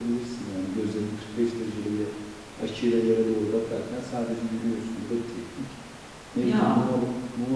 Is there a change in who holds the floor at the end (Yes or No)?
No